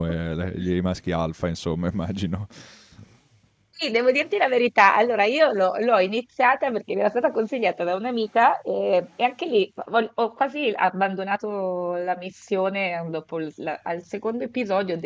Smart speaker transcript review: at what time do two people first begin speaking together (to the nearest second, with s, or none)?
none